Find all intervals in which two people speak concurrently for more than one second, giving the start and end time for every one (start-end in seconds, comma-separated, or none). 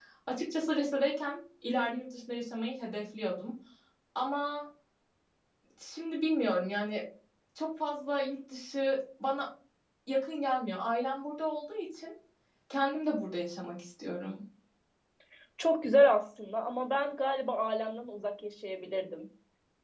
none